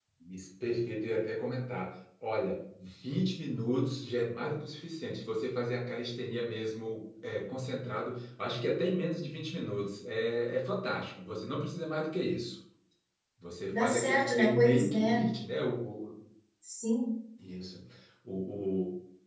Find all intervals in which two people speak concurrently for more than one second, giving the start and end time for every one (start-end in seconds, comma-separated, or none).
13.7-15.2